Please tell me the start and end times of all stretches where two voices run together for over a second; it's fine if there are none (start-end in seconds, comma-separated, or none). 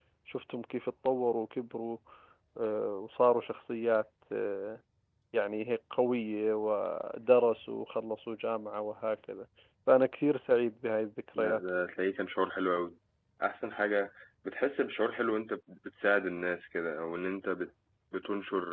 none